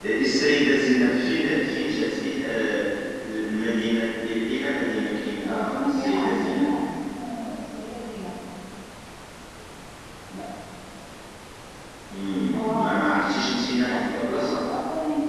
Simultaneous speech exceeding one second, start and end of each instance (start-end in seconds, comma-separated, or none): 5.5-6.7, 12.5-14.5